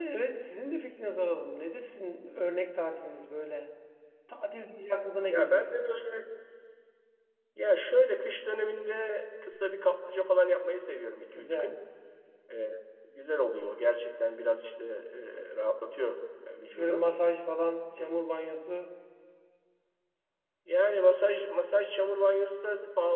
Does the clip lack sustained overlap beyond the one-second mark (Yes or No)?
Yes